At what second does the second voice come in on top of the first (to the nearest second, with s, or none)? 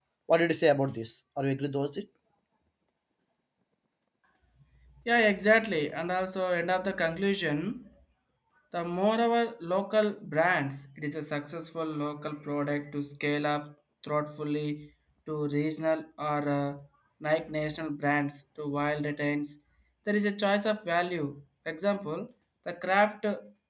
none